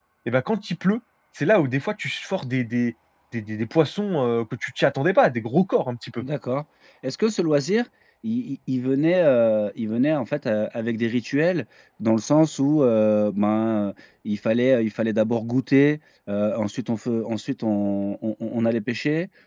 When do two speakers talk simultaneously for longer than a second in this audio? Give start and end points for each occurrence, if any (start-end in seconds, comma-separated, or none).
none